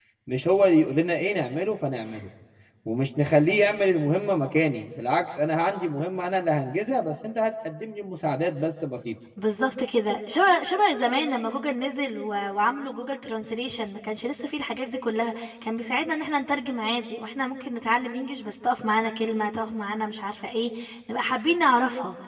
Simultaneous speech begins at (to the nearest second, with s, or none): none